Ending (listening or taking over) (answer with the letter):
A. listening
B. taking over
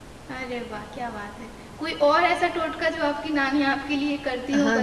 B